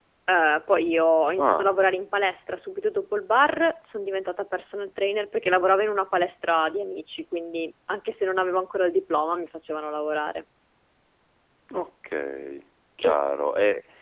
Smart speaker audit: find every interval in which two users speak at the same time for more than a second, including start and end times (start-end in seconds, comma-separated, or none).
none